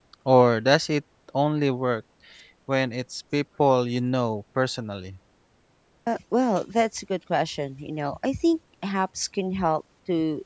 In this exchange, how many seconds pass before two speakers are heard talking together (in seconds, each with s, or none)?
none